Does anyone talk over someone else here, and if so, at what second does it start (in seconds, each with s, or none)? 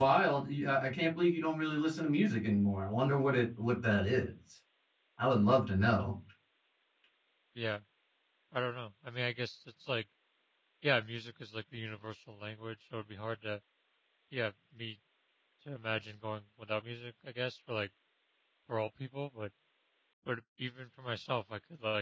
none